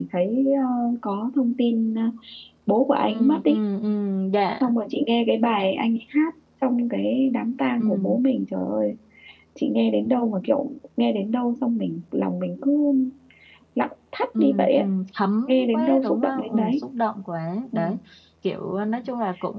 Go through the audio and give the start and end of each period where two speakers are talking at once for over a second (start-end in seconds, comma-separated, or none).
15.5-16.8